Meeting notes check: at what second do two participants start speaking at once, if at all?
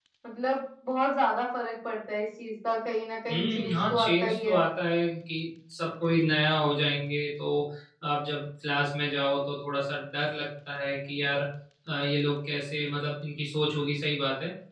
3.3 s

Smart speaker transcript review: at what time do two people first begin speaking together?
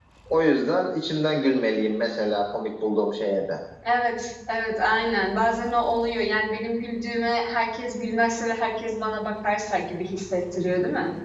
none

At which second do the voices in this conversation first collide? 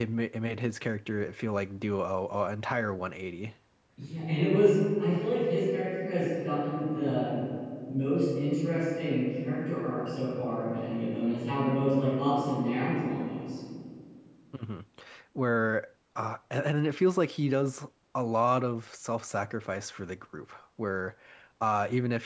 none

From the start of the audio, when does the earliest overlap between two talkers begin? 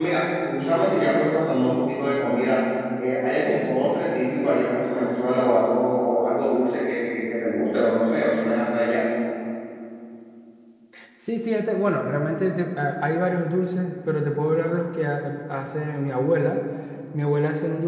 none

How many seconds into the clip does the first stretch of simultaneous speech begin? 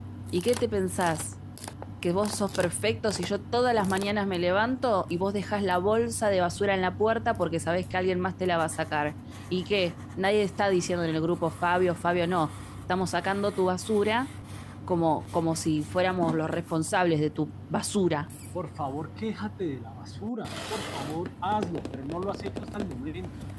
none

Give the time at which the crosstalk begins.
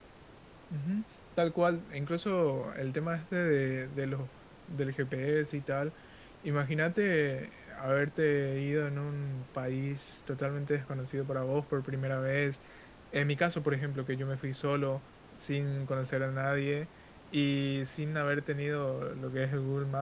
none

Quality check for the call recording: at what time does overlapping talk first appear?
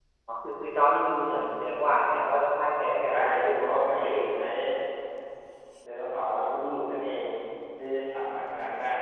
3.0 s

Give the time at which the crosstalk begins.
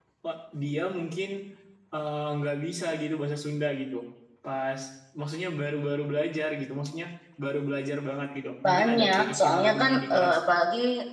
8.6 s

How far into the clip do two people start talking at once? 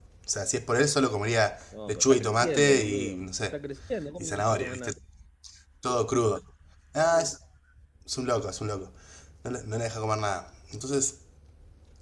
1.7 s

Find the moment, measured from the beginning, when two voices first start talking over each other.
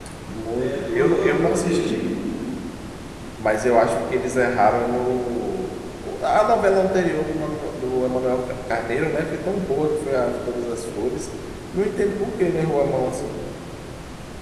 0.6 s

